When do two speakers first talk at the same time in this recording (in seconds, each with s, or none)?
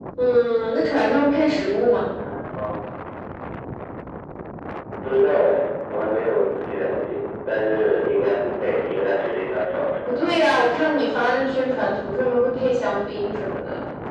none